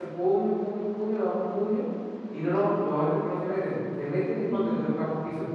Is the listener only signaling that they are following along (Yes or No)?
Yes